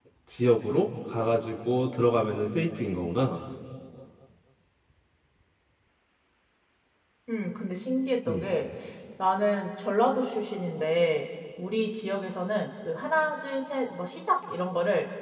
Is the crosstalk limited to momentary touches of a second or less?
Yes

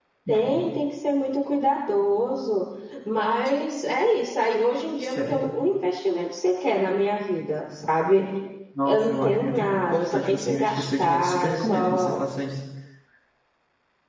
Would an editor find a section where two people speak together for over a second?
Yes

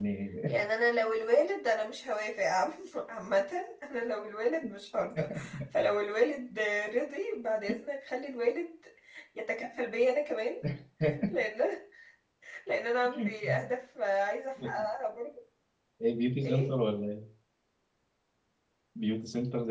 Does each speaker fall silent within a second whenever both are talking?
Yes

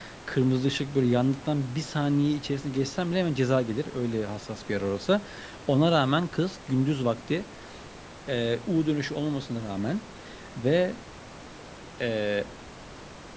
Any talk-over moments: No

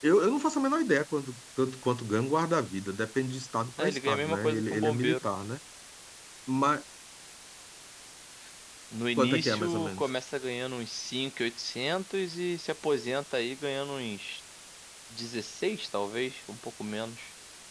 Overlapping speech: Yes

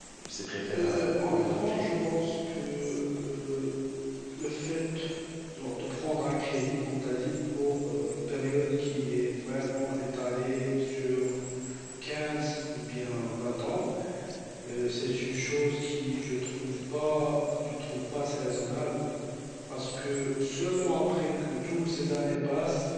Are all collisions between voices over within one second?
No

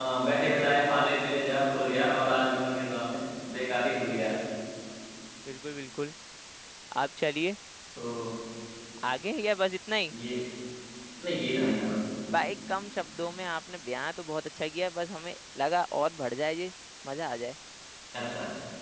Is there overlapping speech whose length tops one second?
No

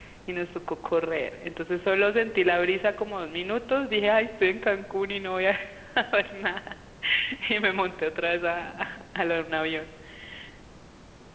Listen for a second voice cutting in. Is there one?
No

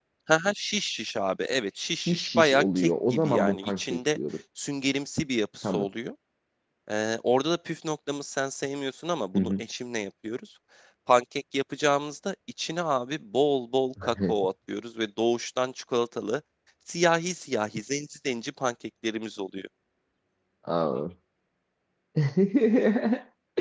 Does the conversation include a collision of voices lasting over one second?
Yes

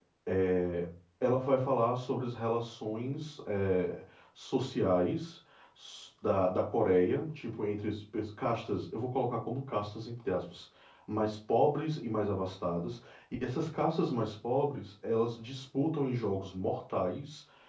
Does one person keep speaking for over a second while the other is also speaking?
No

